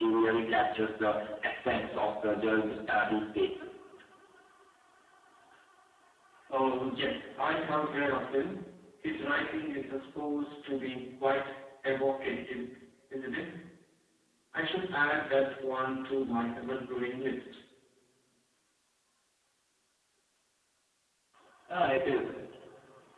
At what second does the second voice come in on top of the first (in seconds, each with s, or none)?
none